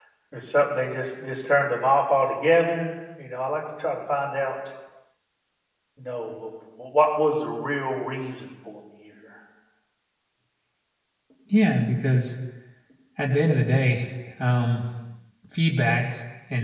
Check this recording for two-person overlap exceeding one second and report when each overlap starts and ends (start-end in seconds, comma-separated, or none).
none